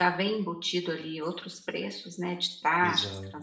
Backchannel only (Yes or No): No